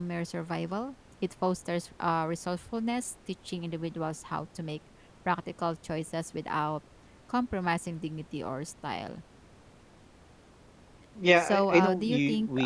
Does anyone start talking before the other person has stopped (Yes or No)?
Yes